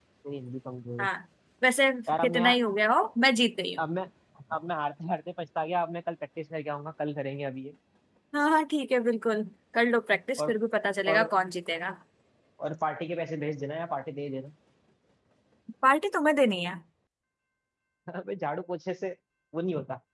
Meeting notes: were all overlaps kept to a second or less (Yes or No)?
Yes